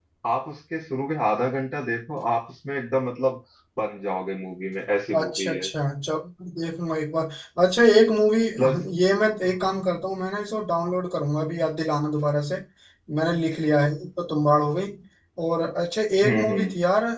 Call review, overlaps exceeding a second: none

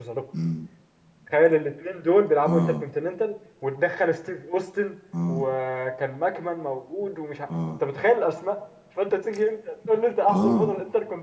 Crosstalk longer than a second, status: none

